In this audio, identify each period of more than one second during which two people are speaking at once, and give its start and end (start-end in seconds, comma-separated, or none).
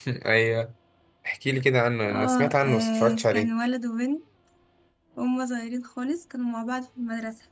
2.1-3.5